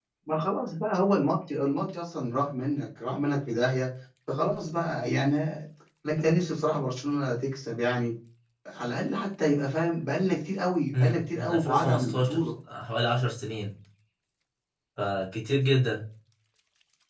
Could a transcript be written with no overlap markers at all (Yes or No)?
No